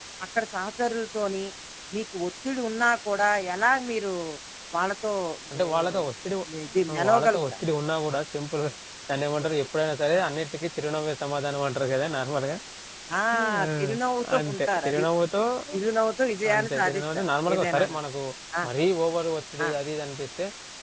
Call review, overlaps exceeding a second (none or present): present